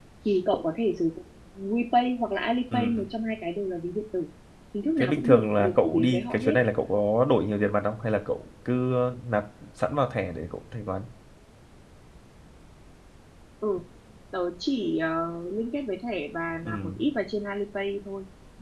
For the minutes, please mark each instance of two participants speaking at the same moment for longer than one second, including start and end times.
5.0-6.5

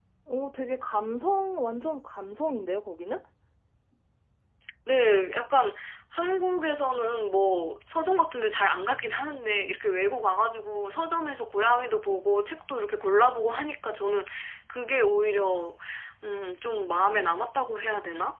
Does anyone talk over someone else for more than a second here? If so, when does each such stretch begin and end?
none

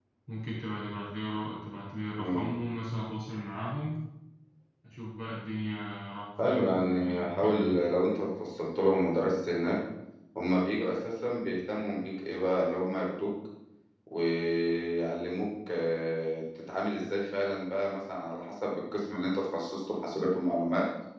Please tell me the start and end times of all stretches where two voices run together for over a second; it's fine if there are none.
6.4-7.8

